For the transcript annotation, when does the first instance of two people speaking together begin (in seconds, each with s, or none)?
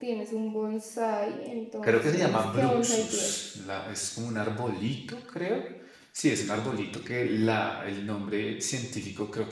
1.8 s